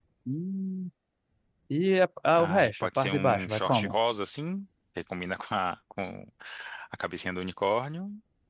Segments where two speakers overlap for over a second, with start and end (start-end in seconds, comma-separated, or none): 2.3-3.9